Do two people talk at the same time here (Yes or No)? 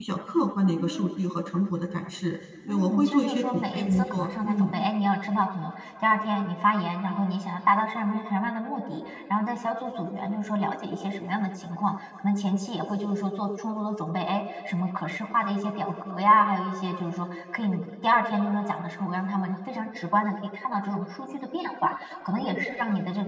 Yes